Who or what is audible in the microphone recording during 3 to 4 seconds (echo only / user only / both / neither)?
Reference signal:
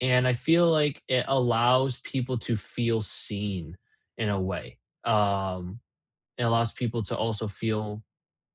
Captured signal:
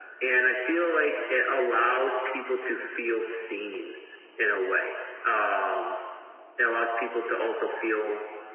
echo only